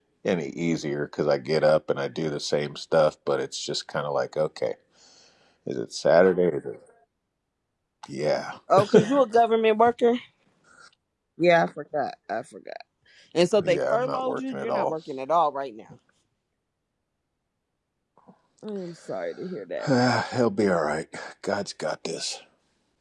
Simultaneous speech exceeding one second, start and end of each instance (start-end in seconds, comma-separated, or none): 13.6-14.9